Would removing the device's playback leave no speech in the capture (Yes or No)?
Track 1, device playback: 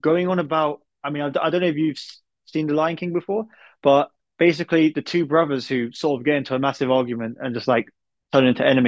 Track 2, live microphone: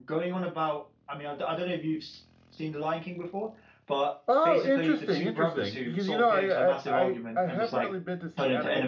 No